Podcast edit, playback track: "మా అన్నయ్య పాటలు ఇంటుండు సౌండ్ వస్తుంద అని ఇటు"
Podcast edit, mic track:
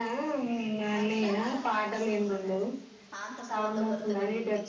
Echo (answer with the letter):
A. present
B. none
A